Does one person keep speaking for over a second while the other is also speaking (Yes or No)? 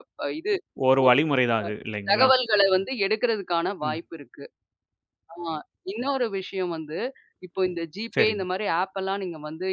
No